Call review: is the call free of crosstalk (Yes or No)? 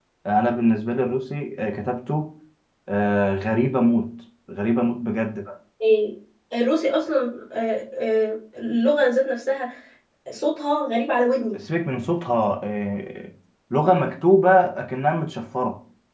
Yes